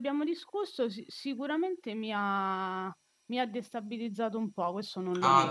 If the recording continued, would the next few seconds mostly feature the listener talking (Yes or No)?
Yes